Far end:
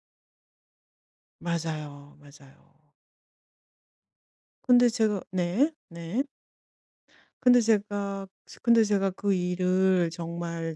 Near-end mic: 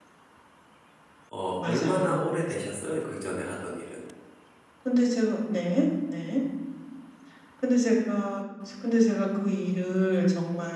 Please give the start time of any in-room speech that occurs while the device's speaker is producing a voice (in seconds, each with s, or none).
1.3 s